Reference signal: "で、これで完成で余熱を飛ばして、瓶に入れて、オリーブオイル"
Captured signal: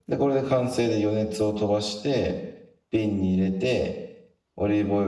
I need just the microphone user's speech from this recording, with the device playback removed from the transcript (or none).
none